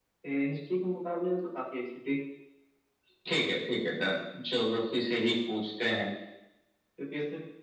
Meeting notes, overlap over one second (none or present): none